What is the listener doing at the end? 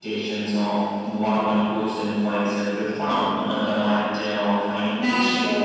taking over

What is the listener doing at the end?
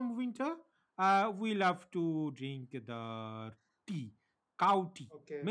taking over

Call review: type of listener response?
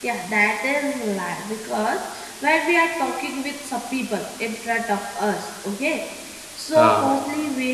listening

